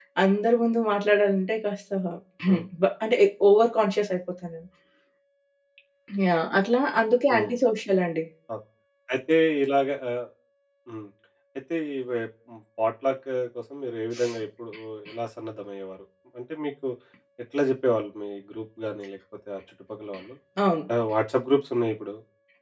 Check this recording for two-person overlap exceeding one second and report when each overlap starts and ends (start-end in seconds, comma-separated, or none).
none